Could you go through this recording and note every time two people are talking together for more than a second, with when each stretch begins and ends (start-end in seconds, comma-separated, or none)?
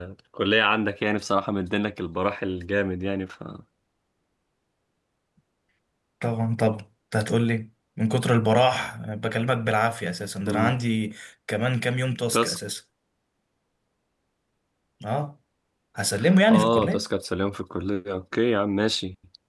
none